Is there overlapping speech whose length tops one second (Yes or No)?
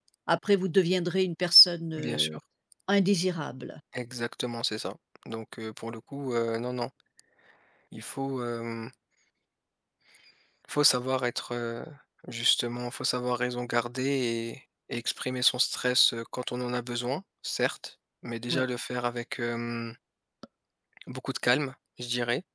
No